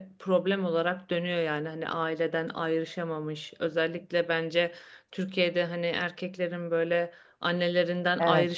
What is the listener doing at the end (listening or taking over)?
listening